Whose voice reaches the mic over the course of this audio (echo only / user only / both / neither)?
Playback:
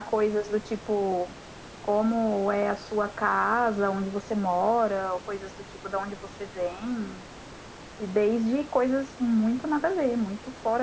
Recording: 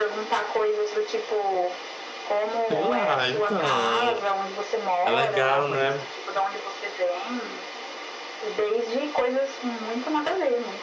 both